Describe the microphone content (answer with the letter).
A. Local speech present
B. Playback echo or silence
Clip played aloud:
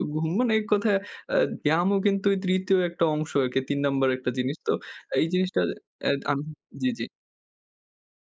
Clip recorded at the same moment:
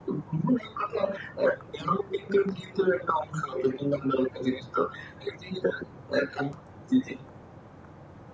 B